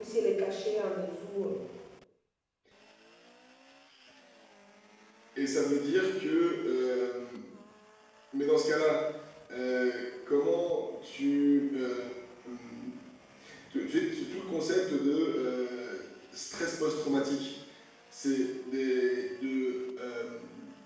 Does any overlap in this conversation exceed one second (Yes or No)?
No